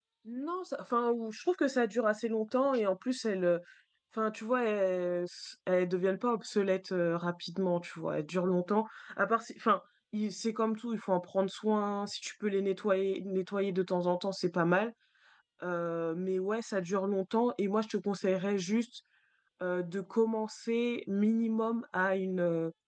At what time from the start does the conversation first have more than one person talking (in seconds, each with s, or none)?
none